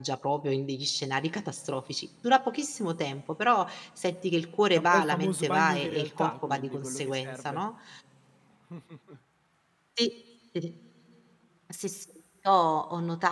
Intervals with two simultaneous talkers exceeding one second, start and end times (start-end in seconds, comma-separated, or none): 4.7-7.6